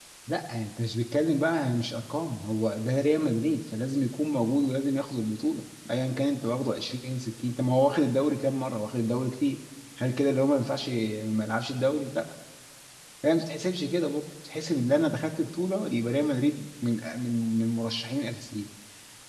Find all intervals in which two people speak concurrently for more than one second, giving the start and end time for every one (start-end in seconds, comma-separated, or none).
none